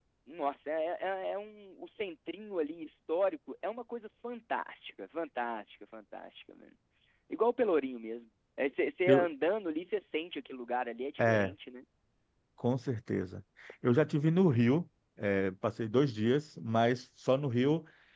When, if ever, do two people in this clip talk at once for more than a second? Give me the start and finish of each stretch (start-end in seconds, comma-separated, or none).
none